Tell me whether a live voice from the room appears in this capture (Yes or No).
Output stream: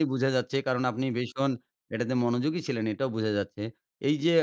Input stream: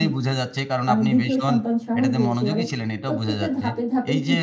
Yes